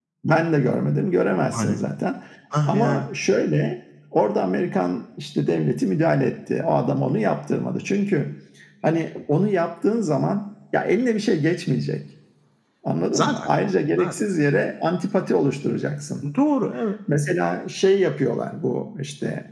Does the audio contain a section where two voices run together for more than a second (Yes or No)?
No